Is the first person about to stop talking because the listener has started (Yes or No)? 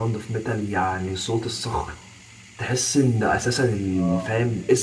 No